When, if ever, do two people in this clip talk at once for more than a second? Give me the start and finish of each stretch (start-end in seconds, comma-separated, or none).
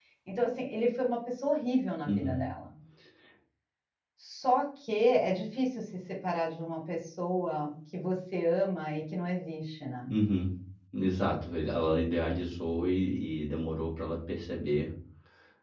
none